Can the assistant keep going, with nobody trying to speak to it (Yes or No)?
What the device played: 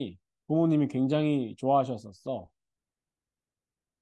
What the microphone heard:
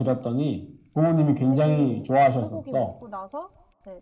No